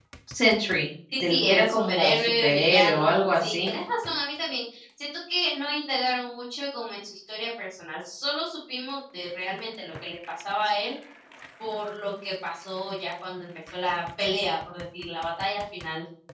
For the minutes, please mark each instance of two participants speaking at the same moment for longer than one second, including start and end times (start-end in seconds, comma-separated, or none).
1.2-3.7